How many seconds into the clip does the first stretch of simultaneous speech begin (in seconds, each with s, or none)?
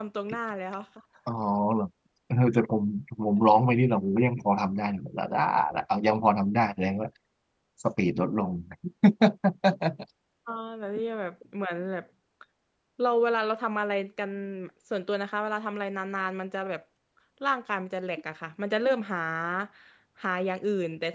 none